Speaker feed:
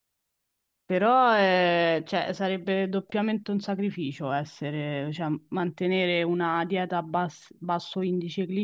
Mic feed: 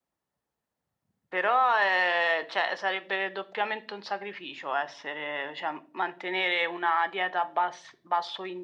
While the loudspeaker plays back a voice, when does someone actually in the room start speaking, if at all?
none

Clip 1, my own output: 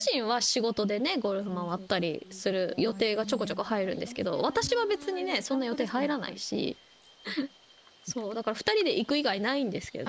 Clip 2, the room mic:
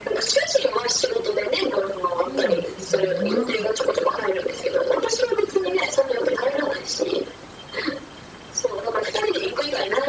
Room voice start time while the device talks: 2.1 s

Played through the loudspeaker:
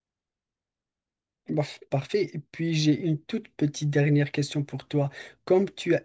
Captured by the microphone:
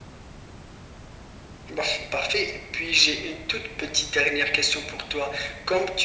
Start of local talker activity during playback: none

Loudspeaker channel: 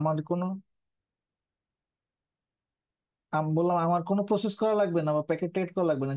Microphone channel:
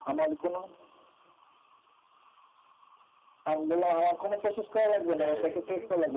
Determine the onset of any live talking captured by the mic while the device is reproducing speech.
5.2 s

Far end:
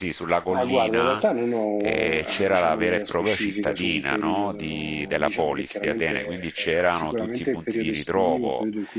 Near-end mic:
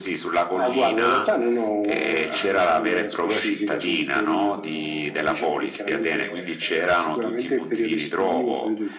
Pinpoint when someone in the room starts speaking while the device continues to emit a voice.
none

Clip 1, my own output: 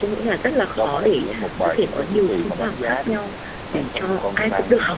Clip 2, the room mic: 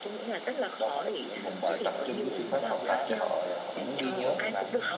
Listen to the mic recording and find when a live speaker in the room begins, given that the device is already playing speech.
1.4 s

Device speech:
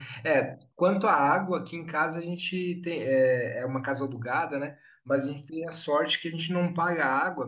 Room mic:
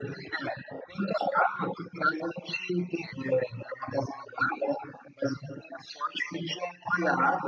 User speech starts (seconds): none

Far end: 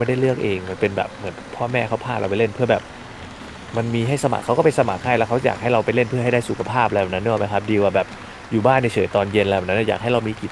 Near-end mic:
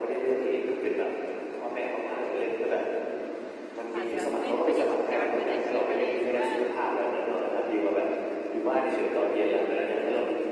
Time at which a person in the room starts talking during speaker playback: 3.9 s

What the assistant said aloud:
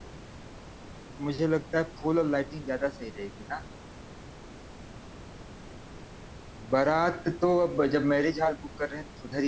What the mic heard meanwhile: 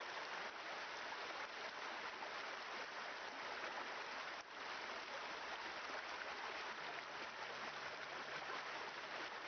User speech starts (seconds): none

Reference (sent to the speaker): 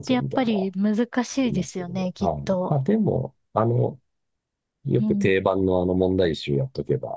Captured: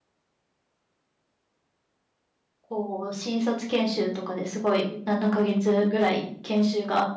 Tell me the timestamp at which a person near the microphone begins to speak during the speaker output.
2.6 s

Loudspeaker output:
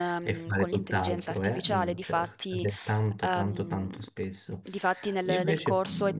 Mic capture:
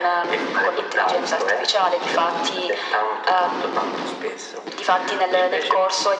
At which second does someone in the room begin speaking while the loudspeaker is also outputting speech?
none

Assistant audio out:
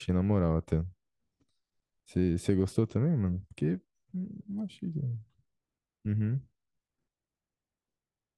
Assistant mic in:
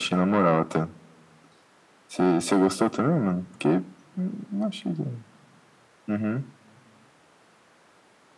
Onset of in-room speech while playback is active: none

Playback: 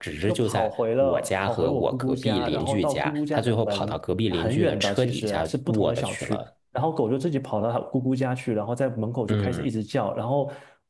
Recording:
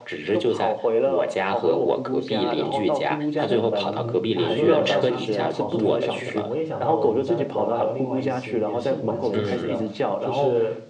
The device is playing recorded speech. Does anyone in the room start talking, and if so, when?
3.3 s

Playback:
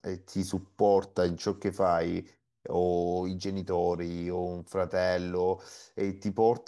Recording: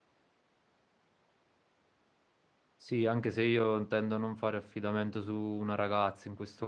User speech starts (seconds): 2.8 s

